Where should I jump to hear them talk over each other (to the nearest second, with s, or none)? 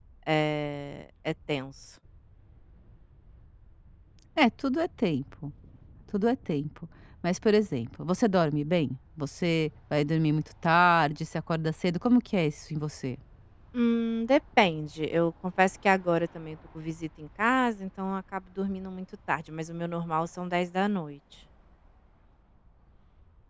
none